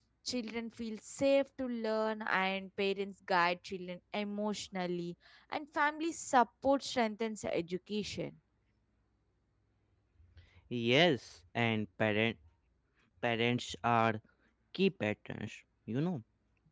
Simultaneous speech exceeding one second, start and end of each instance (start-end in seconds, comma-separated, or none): none